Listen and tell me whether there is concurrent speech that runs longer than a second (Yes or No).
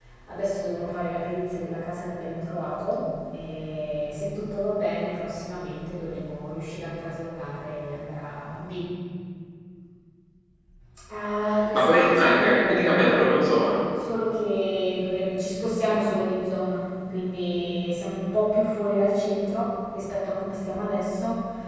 Yes